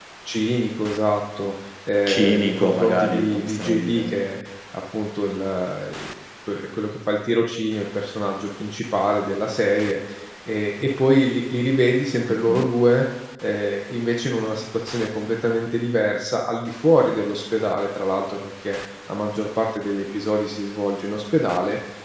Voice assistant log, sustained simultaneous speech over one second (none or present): present